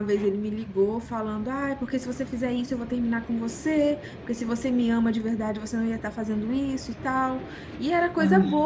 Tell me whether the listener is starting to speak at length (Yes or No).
No